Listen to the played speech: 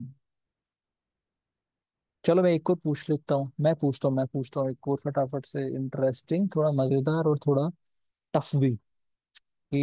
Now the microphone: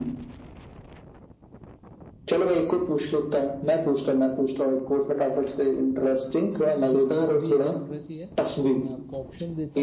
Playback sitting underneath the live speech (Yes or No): No